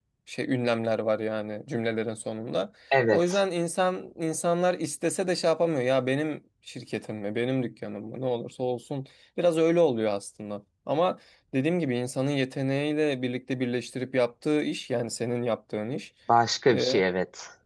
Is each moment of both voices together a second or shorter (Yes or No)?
Yes